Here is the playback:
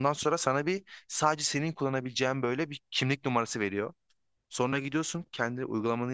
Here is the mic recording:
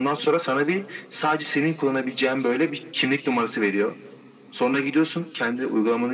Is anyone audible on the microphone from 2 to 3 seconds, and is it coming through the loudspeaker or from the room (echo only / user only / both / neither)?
echo only